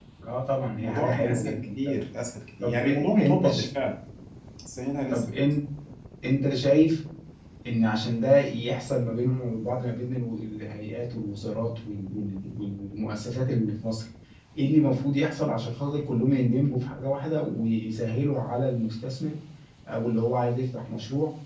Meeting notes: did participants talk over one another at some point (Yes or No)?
Yes